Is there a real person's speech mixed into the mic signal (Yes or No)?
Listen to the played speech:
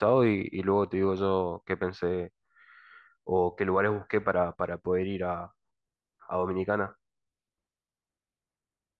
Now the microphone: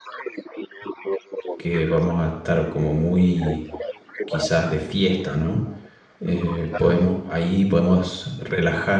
Yes